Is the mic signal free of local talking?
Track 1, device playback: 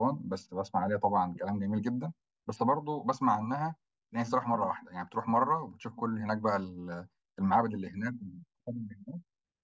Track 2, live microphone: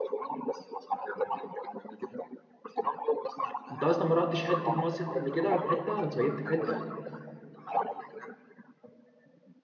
No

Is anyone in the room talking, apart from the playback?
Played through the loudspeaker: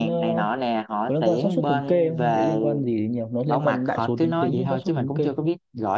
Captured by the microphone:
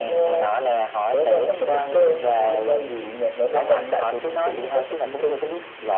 No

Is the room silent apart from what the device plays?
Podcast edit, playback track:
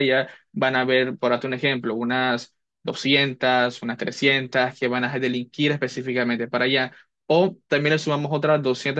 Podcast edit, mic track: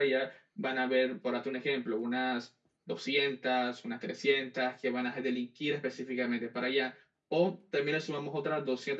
Yes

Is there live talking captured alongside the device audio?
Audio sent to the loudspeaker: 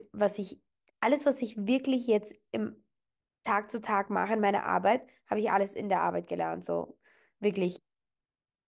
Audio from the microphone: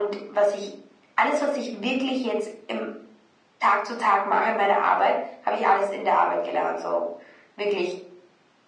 No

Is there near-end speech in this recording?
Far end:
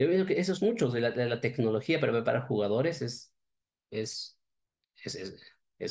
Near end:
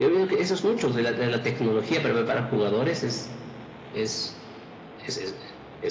No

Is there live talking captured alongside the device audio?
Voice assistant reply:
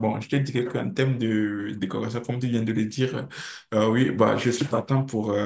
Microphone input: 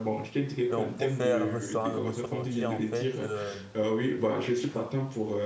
Yes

